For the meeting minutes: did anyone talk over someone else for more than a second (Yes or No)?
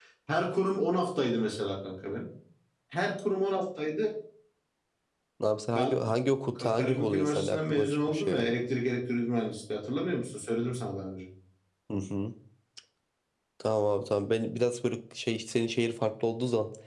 Yes